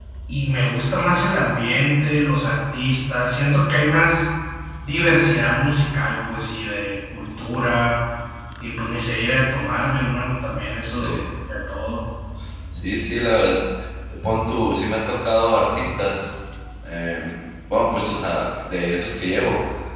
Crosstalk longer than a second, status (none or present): none